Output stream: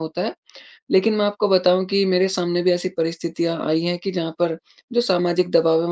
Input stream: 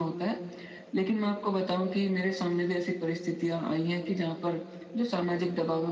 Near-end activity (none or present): none